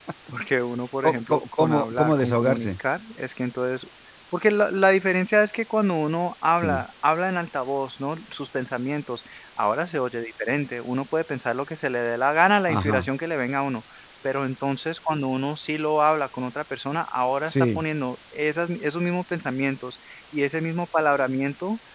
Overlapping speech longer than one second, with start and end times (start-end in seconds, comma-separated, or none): 1.0-2.7